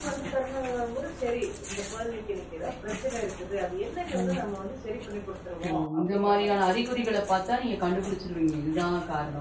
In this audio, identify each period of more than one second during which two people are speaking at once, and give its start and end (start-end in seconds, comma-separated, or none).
5.7-7.0